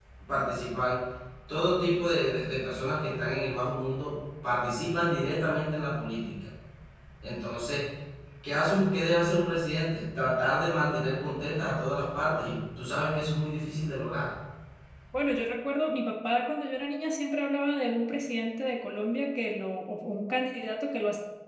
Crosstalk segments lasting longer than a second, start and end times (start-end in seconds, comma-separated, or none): none